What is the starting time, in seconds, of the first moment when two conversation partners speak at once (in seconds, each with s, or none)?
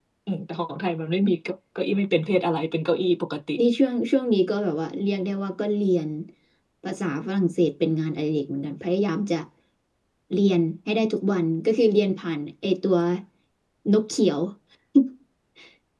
none